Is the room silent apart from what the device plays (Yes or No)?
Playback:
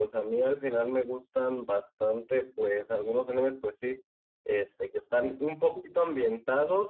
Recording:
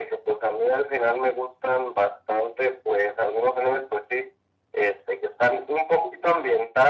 Yes